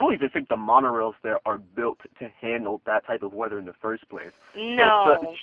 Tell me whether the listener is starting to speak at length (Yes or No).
No